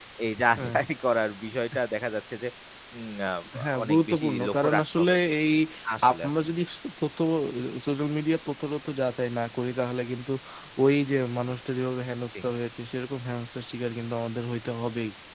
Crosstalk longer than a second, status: present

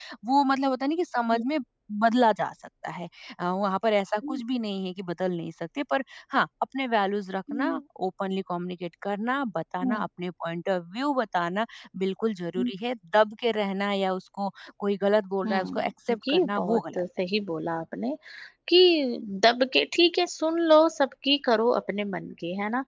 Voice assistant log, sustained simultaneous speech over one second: present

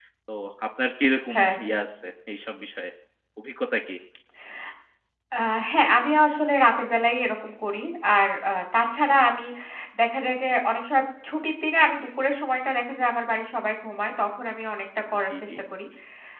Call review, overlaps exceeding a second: none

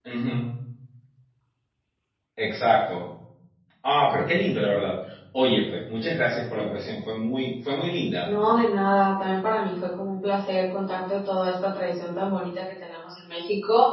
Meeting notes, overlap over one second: none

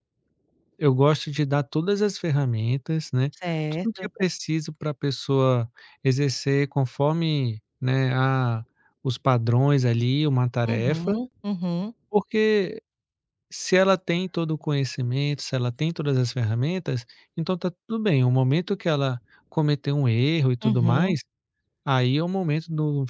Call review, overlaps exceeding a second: none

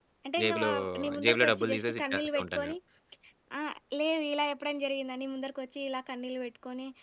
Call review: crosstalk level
present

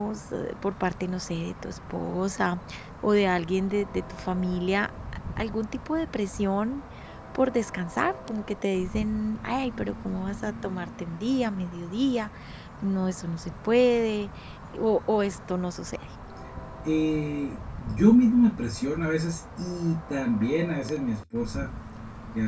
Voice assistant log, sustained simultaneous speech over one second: none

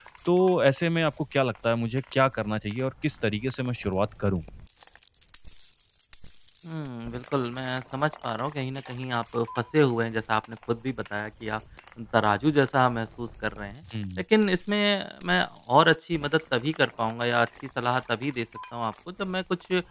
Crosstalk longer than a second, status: none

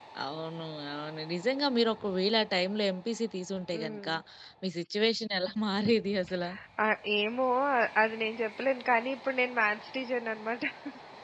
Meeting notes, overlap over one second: none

